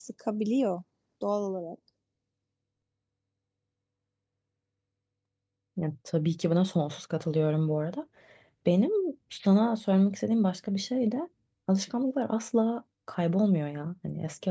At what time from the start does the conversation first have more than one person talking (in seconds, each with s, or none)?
none